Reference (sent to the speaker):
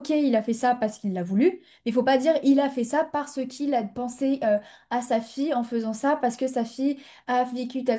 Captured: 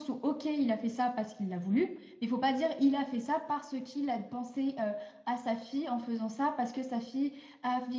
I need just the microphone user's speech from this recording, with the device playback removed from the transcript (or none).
none